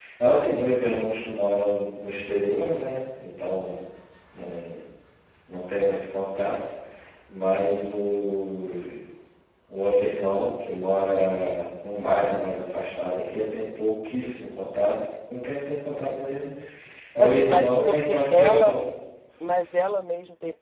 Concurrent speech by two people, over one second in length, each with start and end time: 17.2-18.8

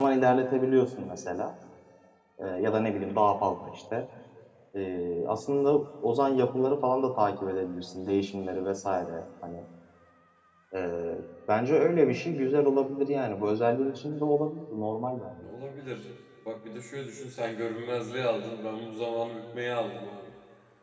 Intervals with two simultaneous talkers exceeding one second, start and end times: none

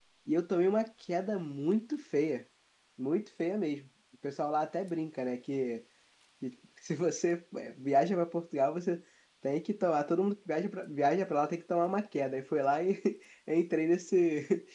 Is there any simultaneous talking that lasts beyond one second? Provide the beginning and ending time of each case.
none

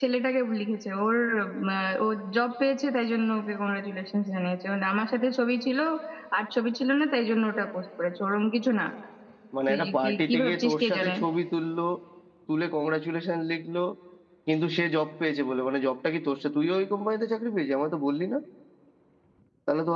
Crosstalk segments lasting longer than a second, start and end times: 9.7-11.1

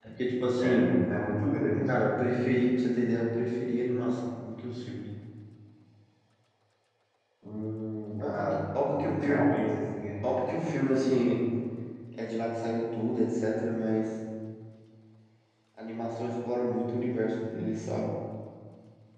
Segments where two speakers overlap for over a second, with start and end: 8.2-9.5

